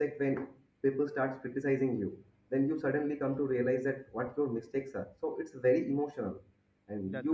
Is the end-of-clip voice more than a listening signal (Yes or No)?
No